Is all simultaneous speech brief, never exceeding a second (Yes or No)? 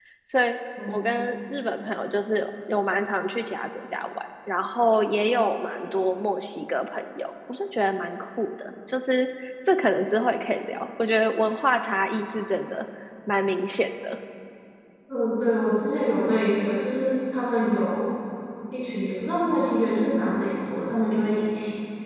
Yes